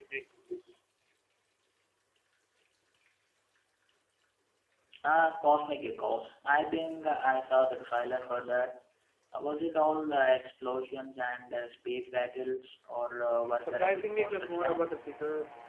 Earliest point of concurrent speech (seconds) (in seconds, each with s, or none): 13.4 s